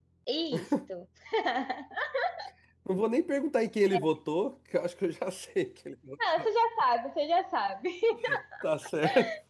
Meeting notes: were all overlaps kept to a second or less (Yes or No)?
Yes